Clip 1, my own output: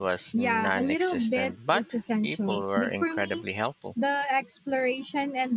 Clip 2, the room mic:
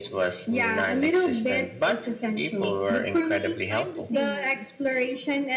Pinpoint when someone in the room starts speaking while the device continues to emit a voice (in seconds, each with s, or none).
3.7 s